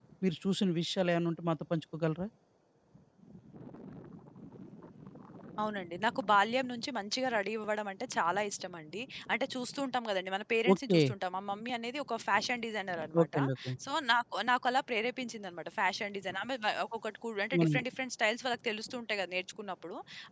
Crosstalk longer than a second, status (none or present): none